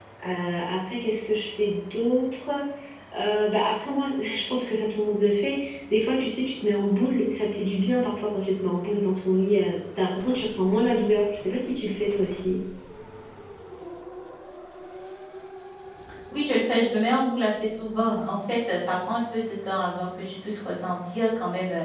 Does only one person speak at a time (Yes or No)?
Yes